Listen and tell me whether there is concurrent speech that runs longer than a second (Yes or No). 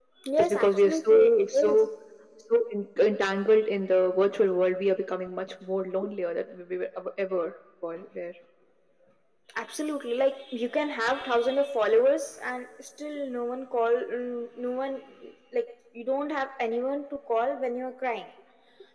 Yes